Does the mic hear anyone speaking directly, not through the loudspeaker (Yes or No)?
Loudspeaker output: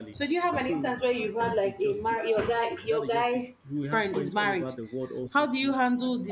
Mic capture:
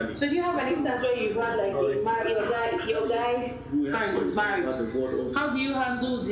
Yes